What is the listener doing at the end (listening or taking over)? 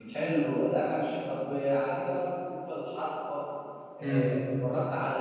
listening